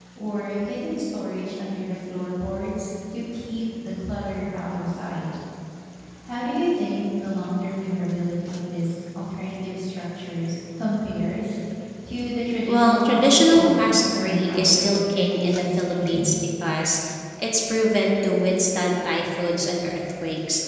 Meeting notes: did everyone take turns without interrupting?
No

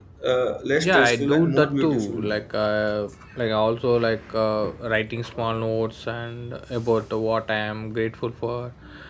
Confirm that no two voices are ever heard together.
No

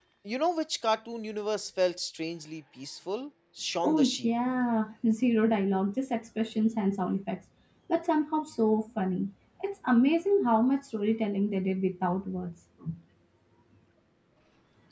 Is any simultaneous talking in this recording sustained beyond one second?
No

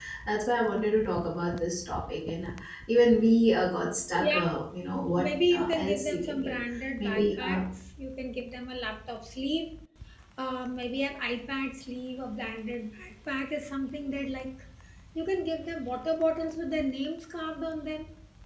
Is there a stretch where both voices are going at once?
Yes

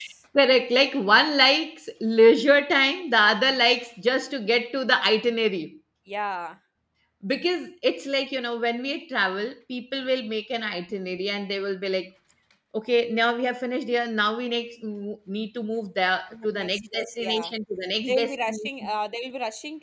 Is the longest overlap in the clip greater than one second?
Yes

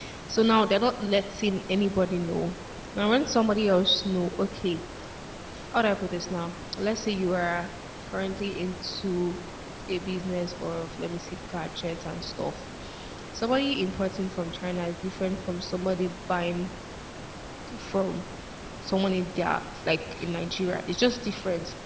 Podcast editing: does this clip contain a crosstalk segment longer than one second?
No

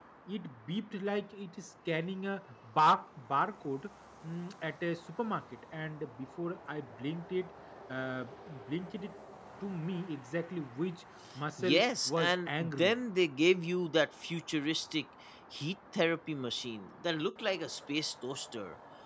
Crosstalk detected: Yes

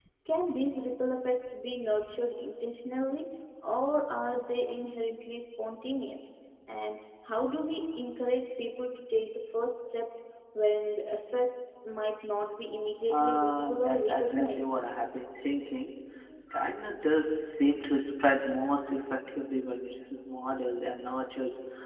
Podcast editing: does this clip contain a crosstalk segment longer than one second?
Yes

